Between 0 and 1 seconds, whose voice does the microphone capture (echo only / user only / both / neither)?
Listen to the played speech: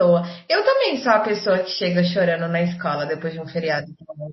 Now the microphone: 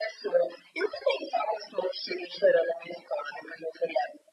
echo only